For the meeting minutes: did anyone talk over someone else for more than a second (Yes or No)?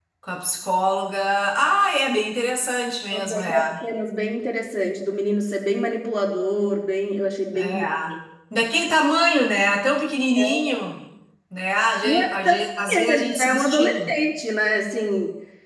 Yes